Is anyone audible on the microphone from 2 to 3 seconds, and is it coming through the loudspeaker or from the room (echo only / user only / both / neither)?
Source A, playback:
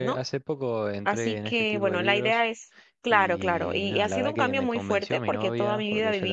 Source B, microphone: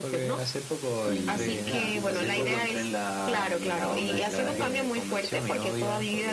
both